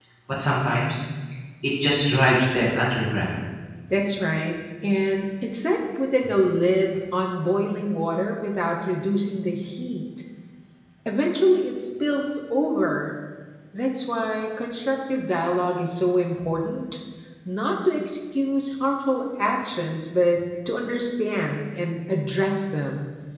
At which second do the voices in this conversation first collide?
none

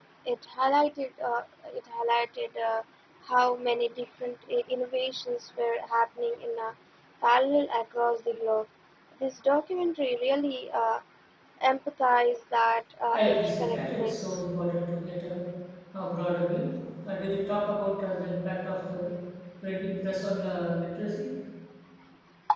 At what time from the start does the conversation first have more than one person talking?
13.1 s

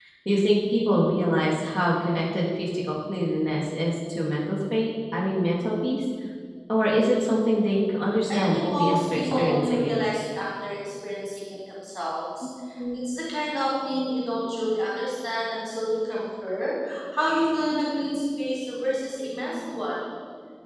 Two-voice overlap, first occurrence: 8.3 s

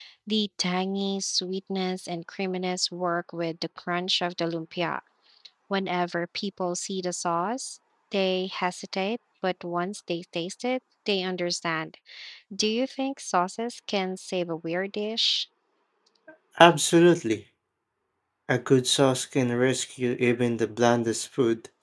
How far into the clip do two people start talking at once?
none

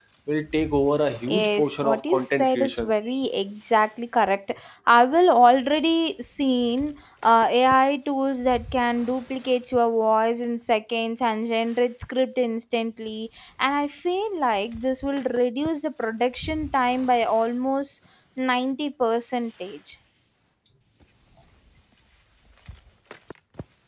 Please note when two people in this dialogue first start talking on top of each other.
1.3 s

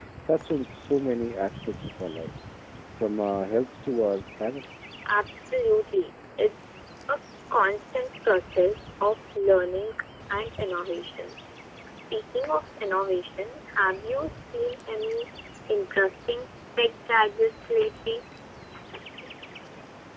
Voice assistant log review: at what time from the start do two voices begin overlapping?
none

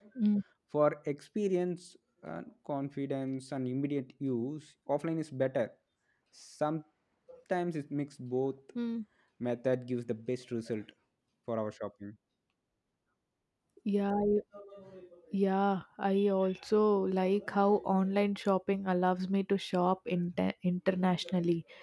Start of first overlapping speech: none

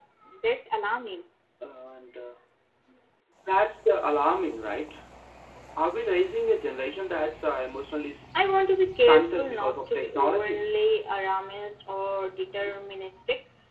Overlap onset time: 8.9 s

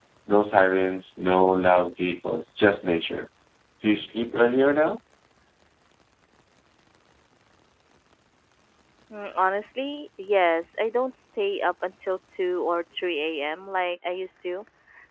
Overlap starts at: none

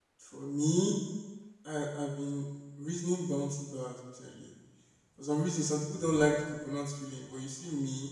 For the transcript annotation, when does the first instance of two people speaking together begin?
none

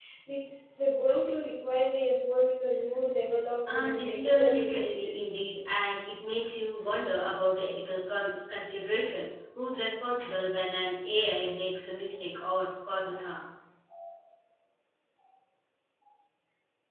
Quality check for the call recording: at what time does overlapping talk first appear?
3.7 s

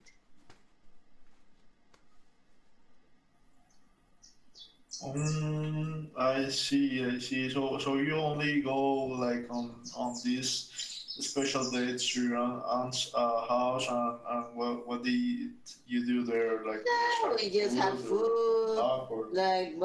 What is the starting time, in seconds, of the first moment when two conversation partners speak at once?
16.8 s

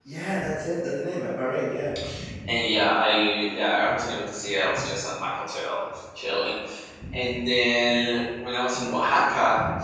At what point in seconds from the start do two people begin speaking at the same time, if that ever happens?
none

